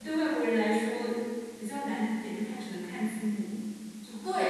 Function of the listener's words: taking over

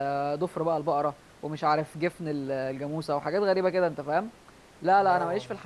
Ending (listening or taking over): listening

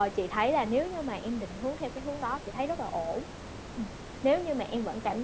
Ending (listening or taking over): listening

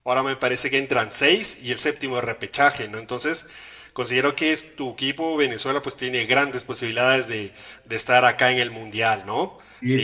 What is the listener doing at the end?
taking over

